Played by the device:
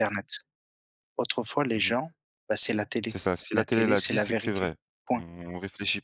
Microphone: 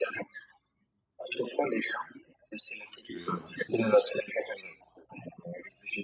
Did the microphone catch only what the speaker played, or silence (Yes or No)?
No